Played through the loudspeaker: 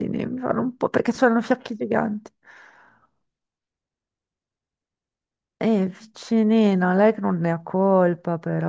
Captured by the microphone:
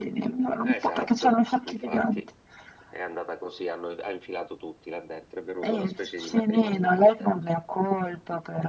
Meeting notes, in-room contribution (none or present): present